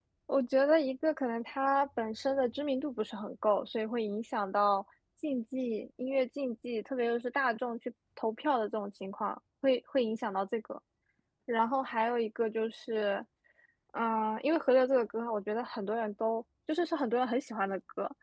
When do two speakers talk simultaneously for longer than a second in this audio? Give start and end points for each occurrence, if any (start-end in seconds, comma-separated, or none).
none